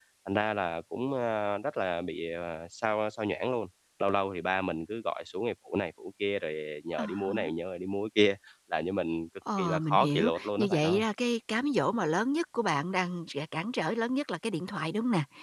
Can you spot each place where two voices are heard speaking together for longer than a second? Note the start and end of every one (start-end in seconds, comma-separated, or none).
9.6-11.0